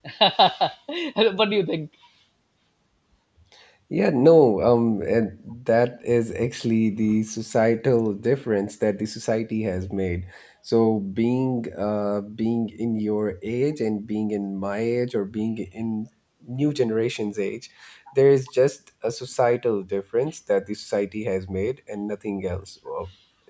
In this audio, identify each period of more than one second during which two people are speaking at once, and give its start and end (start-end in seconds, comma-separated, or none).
none